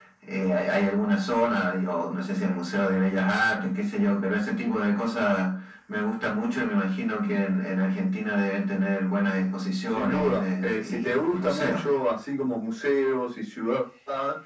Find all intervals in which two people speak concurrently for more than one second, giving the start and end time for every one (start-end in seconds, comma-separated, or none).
9.9-11.8